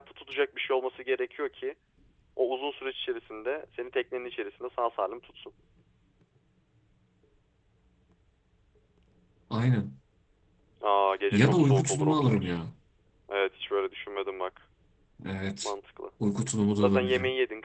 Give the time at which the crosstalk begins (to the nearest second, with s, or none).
11 s